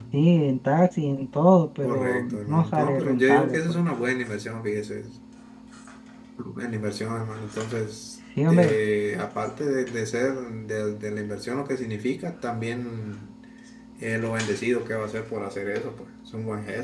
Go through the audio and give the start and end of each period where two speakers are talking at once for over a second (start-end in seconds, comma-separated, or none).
1.8-3.8